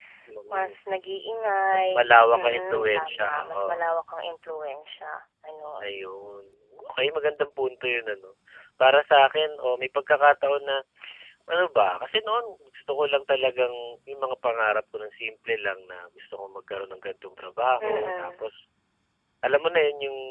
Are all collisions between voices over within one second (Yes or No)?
No